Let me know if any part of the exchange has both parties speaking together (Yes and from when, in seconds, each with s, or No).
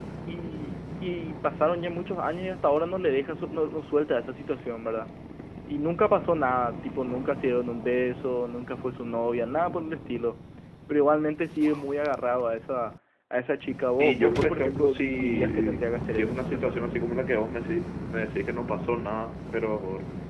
Yes, from 14.0 s